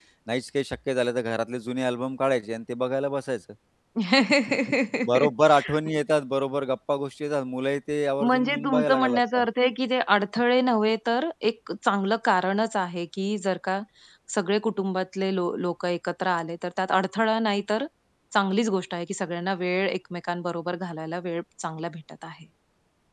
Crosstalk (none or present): present